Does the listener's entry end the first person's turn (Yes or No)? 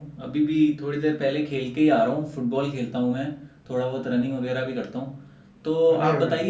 No